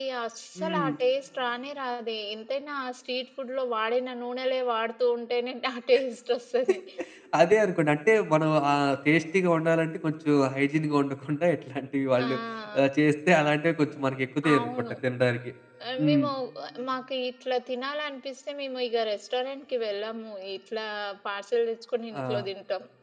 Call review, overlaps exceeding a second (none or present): none